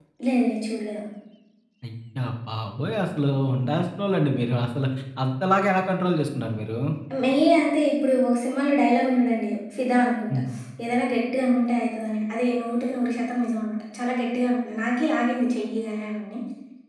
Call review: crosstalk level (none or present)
none